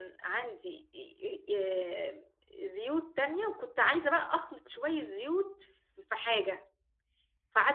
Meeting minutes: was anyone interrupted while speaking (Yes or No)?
No